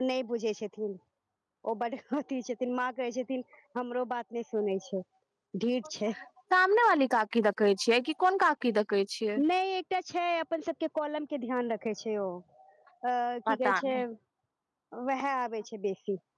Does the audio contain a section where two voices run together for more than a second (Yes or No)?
No